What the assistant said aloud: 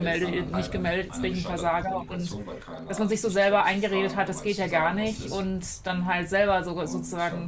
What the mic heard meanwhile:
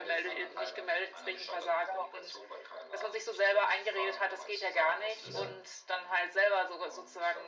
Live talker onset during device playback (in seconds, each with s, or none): 5.2 s